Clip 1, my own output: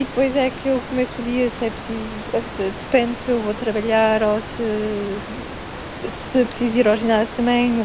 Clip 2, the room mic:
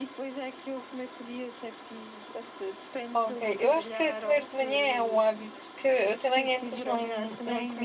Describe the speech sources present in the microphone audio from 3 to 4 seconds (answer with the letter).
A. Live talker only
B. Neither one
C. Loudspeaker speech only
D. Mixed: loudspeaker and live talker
D